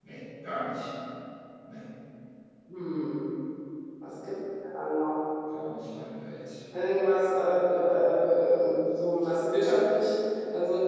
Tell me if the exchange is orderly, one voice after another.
Yes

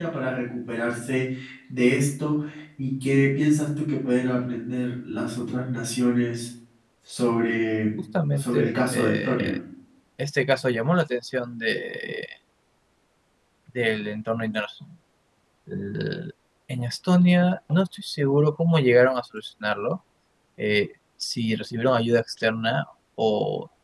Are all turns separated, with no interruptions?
No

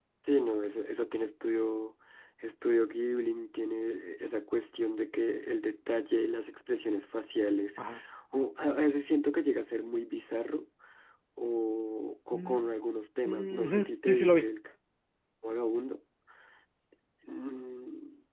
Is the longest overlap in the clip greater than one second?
Yes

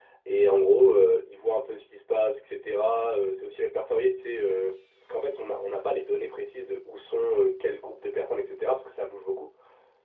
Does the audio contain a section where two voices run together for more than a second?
No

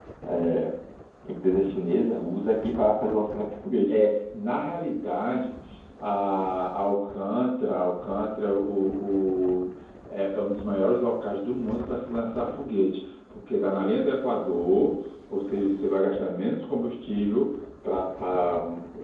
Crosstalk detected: No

